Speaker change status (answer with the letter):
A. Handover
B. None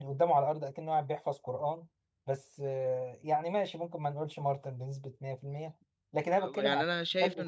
A